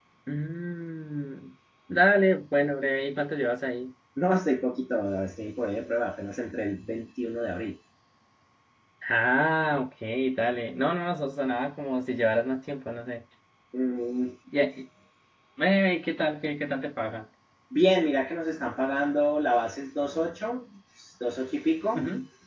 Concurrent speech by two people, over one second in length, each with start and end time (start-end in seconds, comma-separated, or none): none